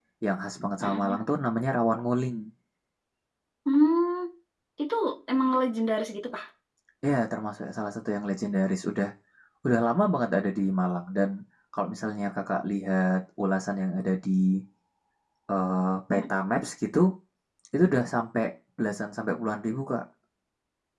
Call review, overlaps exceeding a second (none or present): none